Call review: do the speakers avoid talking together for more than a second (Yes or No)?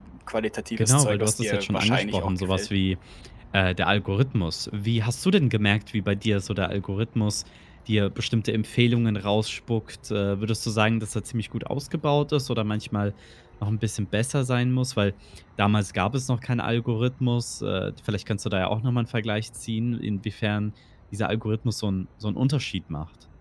No